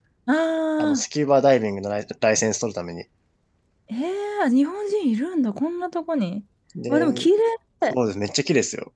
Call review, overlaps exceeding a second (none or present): none